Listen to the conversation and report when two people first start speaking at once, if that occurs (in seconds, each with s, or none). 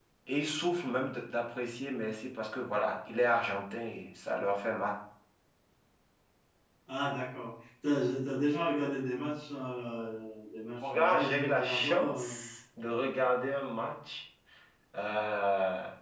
10.8 s